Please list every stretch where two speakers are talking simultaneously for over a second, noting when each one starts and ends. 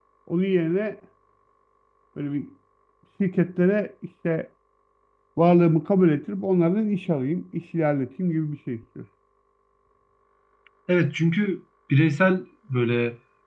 none

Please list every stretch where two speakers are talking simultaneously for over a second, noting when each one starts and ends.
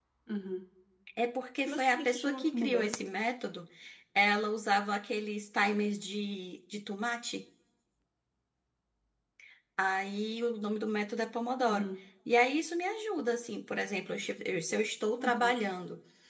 1.6-3.0

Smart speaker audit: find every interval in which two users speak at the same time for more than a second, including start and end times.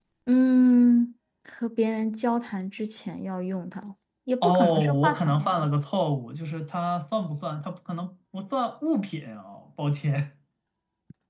4.4-5.7

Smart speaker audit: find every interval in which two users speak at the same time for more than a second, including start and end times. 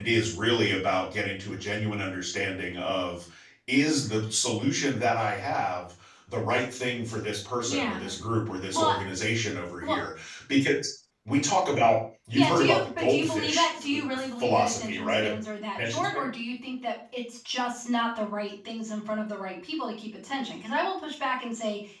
12.3-15.3

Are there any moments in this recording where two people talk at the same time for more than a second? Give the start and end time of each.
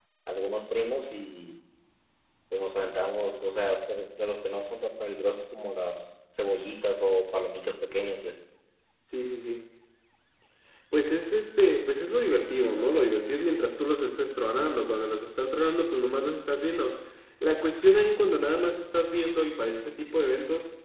none

